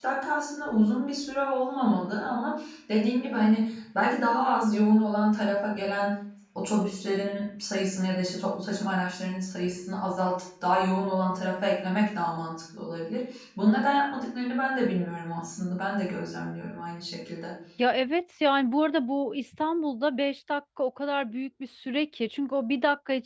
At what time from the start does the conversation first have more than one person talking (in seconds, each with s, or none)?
none